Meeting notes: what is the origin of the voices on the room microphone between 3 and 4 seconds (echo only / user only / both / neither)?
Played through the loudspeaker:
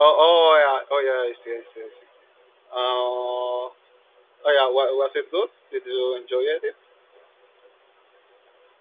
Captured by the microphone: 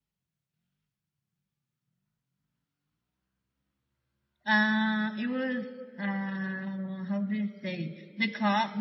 neither